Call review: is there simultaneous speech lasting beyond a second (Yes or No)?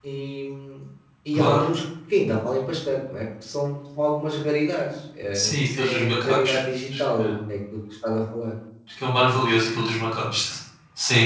Yes